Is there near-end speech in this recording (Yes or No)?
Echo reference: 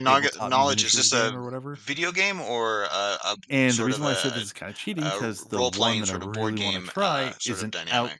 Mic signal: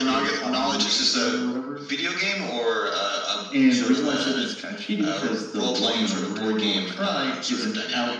No